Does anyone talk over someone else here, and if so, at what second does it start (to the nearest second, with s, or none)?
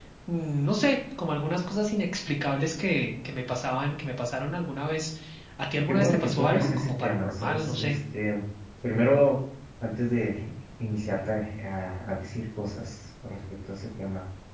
6 s